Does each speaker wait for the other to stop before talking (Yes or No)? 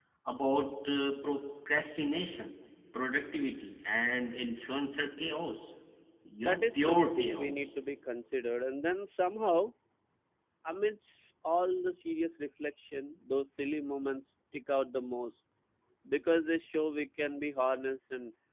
No